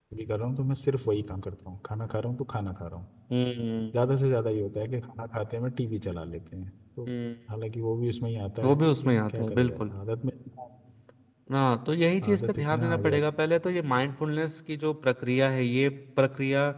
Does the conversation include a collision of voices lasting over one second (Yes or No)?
Yes